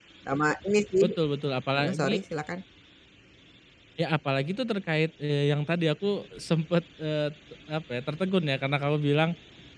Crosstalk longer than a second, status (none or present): none